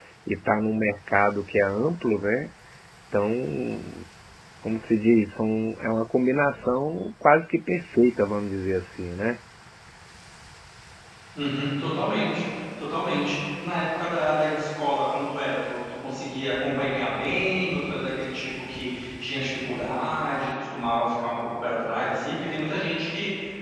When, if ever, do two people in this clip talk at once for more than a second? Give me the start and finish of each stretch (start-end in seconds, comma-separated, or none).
none